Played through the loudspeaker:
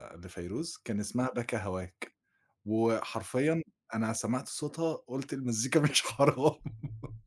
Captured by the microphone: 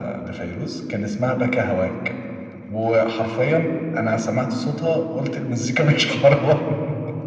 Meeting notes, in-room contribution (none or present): none